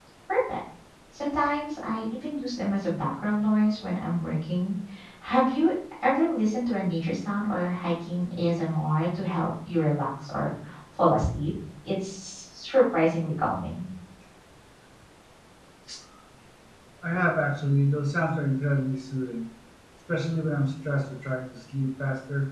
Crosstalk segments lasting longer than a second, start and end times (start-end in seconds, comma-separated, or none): none